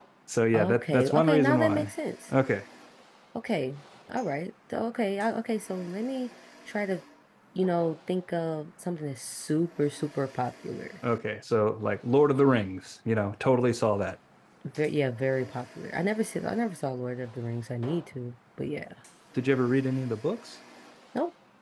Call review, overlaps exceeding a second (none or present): present